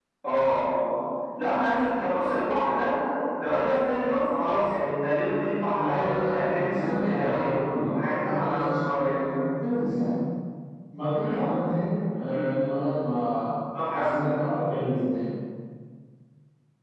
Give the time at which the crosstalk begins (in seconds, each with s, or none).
5.7 s